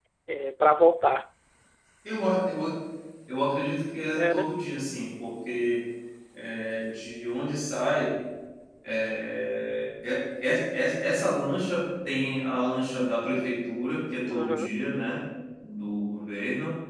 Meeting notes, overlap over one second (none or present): none